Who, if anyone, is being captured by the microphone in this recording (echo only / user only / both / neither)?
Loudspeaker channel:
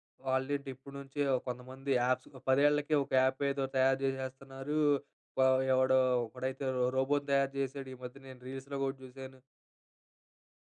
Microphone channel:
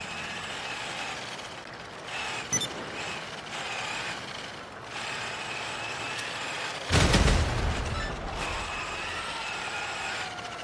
neither